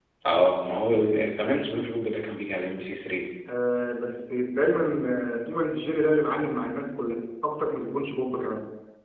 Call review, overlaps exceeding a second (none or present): none